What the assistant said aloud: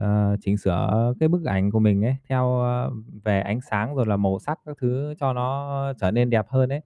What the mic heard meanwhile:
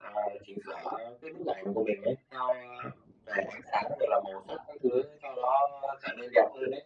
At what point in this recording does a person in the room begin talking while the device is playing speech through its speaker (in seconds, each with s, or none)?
none